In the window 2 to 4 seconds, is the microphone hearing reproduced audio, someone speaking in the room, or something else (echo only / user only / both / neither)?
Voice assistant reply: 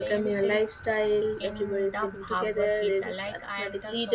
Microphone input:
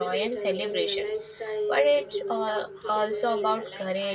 both